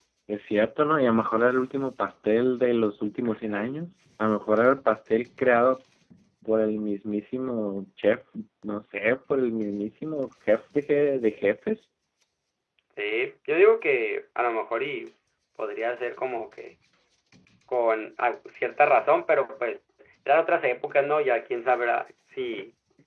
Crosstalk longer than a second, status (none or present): none